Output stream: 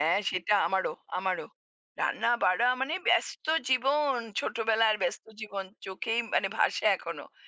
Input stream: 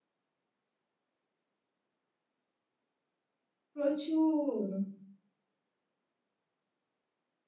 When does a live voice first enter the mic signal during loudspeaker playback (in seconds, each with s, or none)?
3.7 s